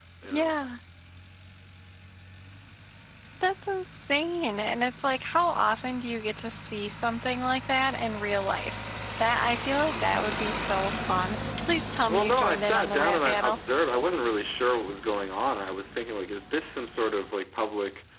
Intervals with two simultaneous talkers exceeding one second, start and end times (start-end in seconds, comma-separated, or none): 12.1-13.6